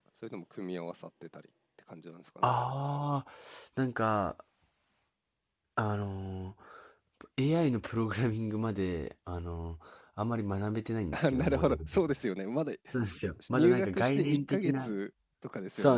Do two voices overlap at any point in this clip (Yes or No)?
Yes